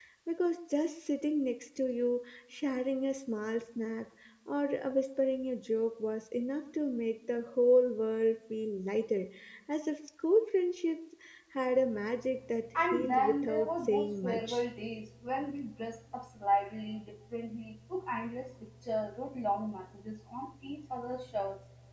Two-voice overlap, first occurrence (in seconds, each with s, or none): 12.7 s